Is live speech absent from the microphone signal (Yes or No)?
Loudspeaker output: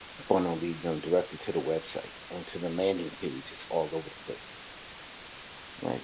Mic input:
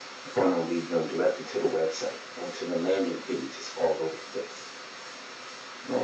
Yes